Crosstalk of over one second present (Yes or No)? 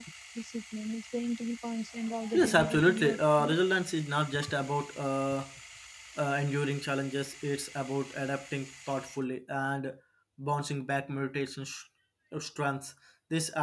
Yes